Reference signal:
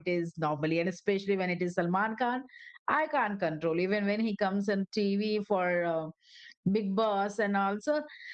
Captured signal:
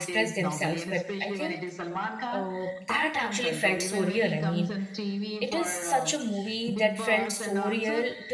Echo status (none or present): present